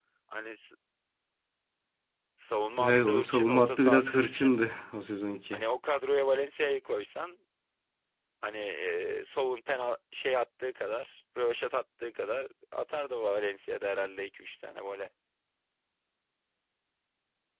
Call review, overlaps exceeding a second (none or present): present